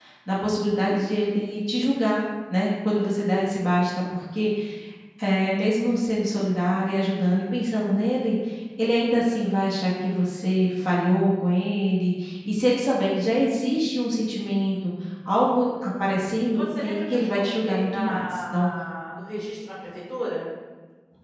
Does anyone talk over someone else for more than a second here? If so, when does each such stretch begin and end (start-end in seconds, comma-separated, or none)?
16.5-18.7